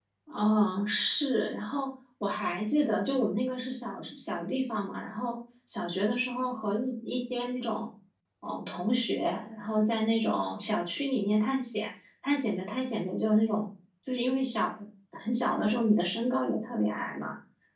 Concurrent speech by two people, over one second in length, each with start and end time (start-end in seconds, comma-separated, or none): none